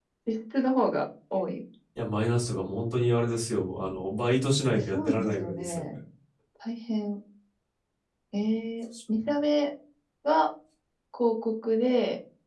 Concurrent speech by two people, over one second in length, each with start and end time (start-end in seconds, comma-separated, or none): 4.7-5.9